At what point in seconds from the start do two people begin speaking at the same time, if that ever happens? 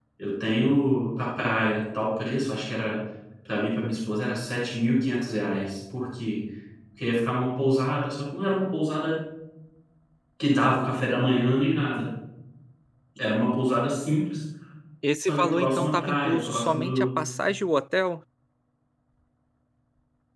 15.2 s

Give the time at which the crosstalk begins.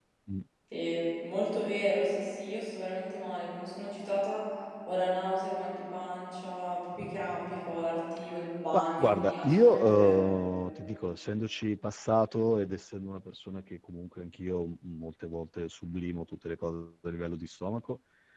8.7 s

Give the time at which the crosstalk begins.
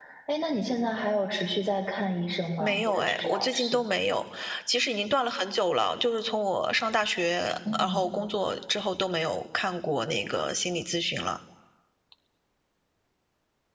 2.6 s

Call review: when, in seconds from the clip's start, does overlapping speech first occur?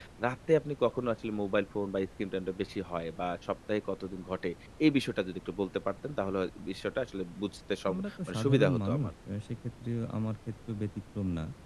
7.8 s

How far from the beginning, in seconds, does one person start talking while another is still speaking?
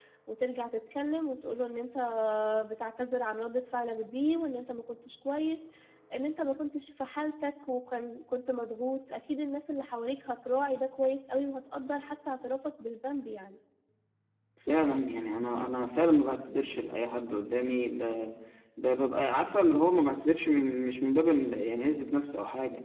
none

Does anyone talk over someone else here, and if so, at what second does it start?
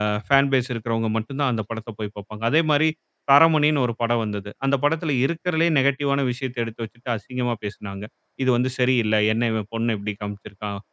none

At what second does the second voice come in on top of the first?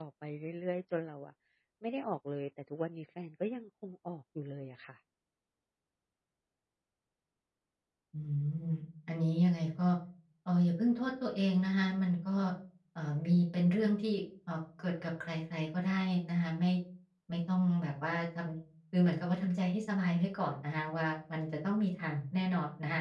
none

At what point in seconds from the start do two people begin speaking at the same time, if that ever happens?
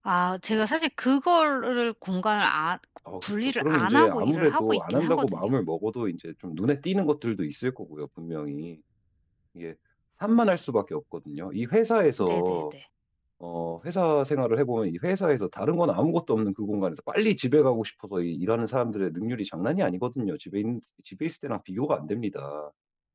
3.4 s

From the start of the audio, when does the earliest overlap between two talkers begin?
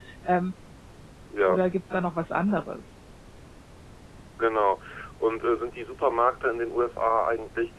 none

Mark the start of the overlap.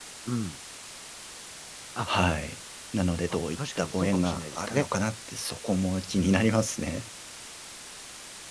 3.3 s

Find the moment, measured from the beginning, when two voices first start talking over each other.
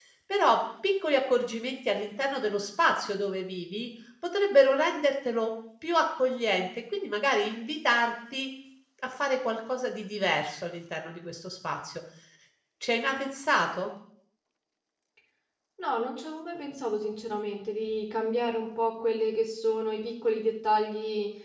none

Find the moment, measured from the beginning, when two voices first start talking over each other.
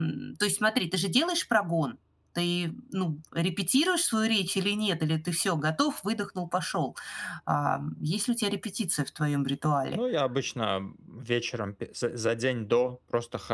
none

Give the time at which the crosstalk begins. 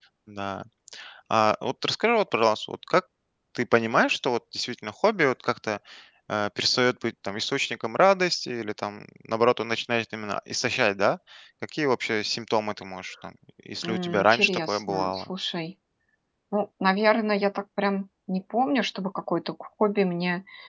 13.8 s

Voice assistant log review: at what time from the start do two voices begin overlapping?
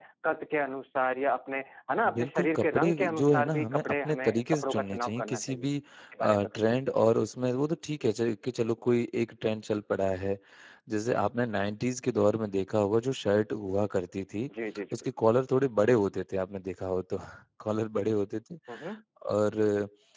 2.1 s

